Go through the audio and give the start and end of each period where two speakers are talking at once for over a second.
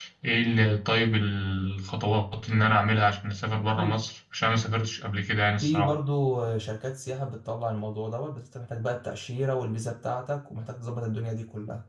none

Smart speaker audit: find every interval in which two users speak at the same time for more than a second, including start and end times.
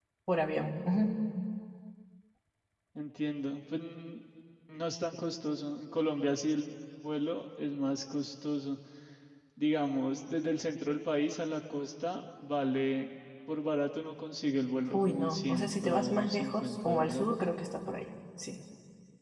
14.9-17.4

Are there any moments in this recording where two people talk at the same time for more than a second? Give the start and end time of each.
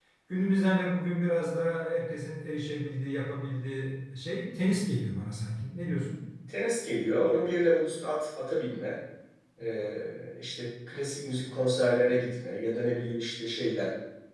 none

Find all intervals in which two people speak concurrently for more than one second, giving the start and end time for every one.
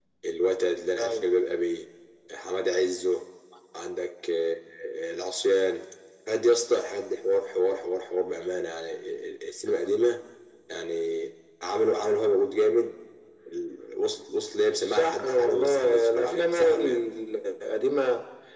14.8-17.0

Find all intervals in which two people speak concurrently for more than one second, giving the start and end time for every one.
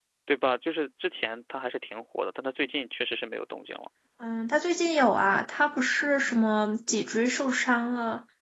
none

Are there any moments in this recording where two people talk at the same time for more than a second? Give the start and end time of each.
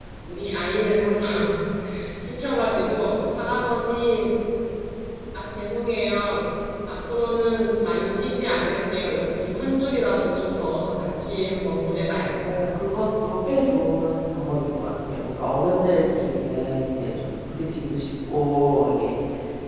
none

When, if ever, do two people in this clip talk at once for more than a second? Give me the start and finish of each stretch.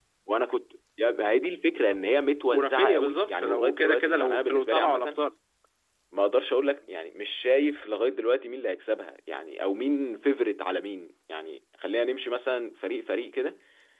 2.5-5.2

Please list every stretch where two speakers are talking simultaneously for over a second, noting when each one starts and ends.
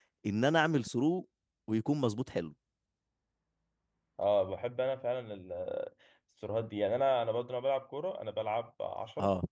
none

